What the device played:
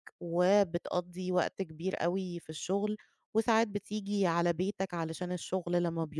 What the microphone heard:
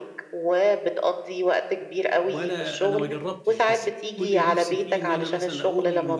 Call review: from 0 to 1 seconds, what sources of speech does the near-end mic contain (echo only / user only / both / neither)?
echo only